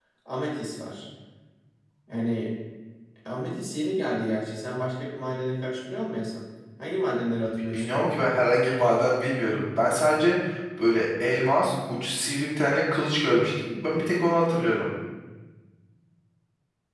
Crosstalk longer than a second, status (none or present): none